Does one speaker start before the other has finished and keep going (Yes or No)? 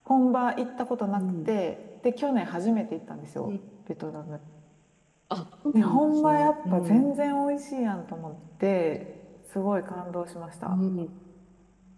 Yes